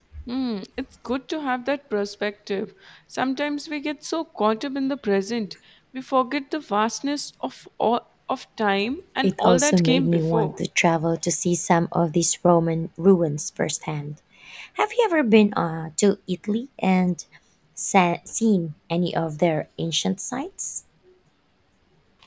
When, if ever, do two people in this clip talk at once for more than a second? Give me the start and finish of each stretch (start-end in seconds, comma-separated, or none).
9.2-10.5